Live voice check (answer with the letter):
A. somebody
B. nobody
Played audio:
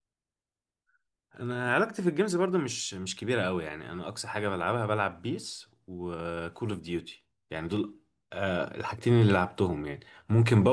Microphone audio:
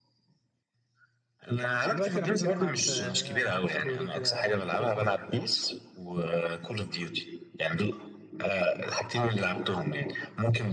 A